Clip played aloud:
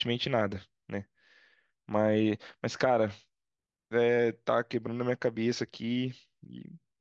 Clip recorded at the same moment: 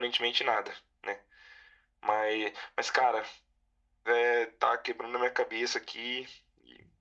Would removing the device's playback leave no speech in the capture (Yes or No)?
Yes